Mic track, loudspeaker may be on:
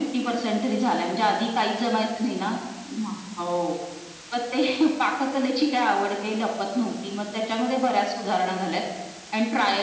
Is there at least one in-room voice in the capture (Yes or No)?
No